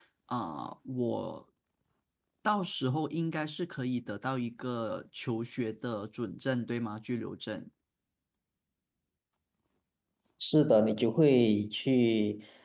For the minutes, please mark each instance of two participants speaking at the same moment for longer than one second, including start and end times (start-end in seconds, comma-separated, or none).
none